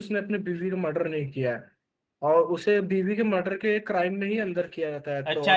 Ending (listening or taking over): taking over